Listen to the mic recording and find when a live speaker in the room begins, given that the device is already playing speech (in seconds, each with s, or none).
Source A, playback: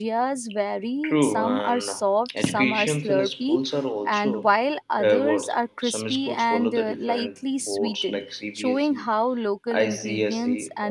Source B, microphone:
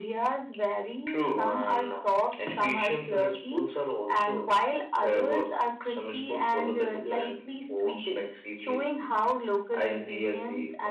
none